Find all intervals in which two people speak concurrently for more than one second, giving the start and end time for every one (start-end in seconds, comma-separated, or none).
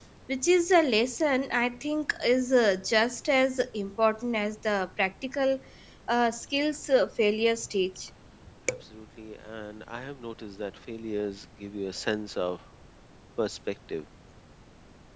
none